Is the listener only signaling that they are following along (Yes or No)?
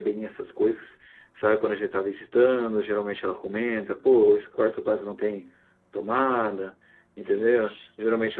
Yes